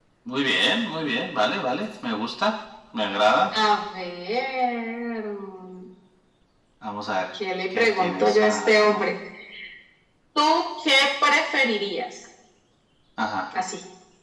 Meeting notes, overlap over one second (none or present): present